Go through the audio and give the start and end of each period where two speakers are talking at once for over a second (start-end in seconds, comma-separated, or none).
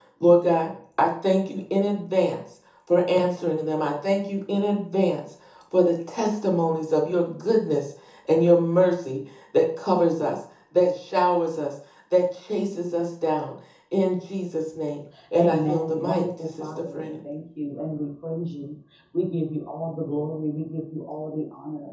15.4-17.2